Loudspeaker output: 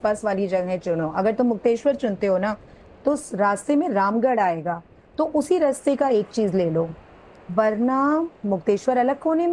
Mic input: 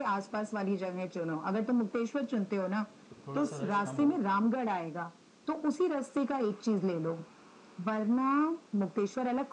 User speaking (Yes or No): Yes